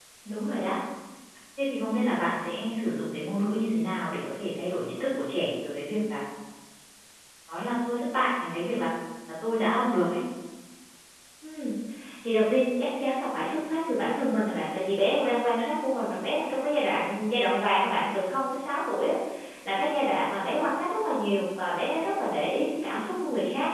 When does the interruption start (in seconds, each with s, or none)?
none